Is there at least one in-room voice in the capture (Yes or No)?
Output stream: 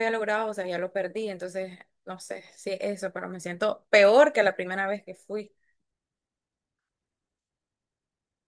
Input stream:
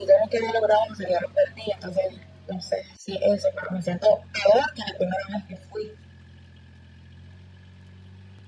No